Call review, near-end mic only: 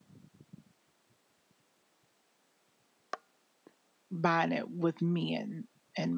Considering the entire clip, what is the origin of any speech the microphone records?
user only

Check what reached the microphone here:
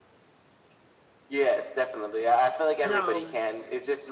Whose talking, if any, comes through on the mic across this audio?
both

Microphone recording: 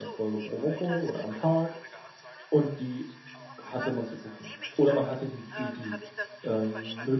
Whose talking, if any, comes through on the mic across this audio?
both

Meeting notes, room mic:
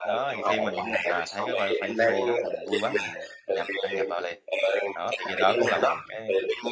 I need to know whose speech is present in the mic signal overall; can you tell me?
both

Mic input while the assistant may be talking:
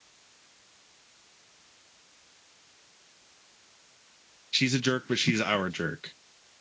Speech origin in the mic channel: user only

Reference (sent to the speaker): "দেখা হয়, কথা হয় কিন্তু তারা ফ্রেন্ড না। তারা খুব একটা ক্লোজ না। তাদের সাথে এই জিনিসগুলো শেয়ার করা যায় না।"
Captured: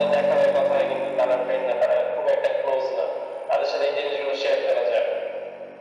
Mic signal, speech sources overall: echo only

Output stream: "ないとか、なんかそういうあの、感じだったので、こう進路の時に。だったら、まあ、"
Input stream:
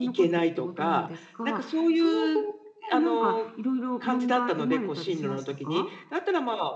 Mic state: both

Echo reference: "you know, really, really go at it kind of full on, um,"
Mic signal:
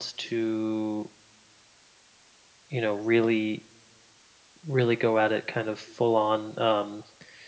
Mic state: echo only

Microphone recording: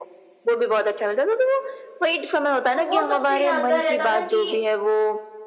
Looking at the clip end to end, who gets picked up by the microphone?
both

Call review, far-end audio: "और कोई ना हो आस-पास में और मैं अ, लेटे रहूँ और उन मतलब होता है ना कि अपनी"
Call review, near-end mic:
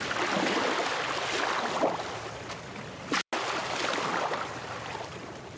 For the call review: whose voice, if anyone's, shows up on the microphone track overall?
neither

